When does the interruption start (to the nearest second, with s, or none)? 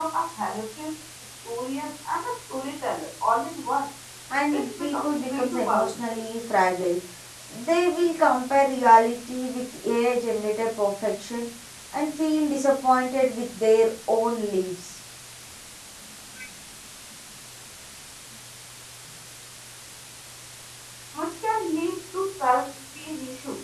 5 s